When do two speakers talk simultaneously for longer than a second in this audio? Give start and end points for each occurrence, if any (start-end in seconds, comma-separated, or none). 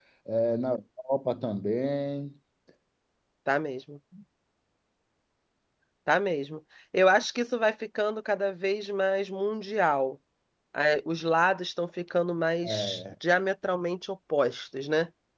none